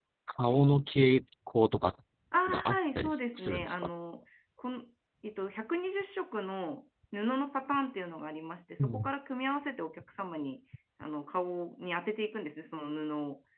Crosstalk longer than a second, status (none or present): present